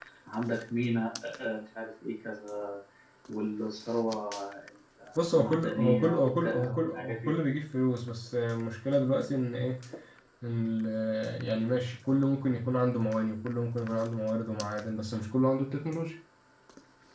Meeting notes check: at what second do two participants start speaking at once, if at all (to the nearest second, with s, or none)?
5 s